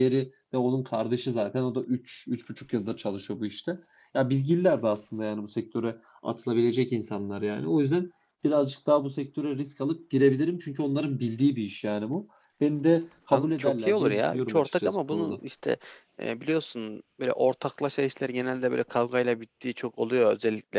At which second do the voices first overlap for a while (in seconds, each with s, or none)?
13.3 s